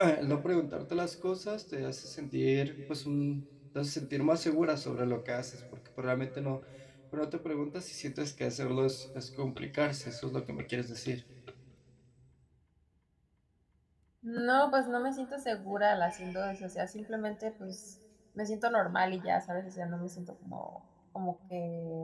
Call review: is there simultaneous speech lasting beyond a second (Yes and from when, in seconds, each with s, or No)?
No